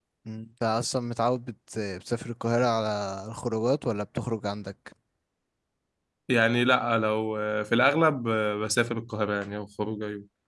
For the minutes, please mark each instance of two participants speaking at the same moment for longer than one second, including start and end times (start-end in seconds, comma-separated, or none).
none